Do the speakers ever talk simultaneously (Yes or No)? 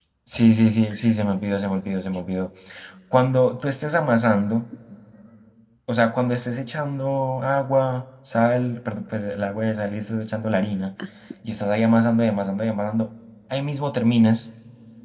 No